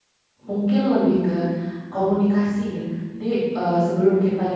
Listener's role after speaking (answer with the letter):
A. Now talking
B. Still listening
B